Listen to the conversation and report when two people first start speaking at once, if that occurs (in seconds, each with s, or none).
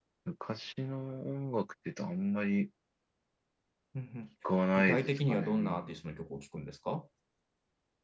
4.8 s